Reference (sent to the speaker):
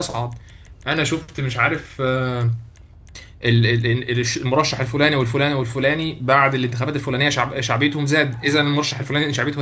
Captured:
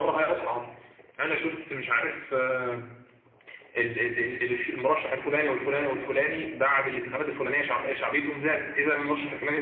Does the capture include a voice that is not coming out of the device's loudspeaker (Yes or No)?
No